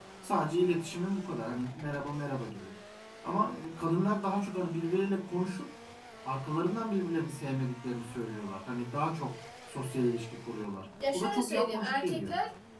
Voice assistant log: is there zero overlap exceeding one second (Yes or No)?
No